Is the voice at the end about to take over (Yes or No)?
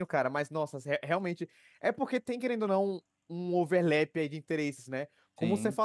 No